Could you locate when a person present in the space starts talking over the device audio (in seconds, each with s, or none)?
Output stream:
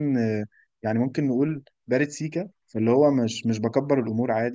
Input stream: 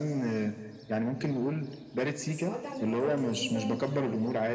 2.3 s